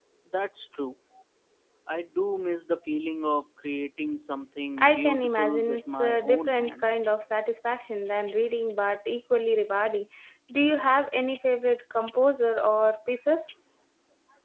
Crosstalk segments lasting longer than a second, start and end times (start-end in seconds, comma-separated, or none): 4.8-7.1